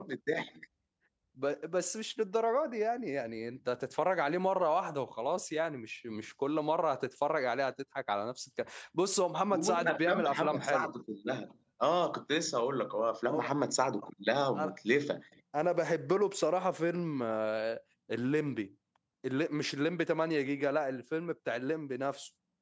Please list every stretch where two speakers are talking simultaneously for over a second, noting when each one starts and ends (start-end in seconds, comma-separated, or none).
9.5-10.9